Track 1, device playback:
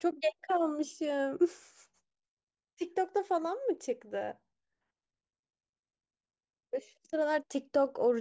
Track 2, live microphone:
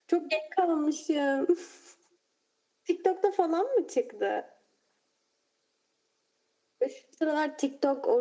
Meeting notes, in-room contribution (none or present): none